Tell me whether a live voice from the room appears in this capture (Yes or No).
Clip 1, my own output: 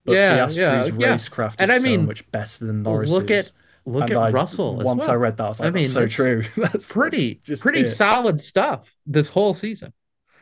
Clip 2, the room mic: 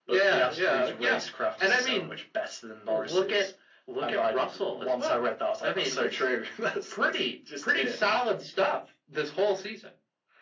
No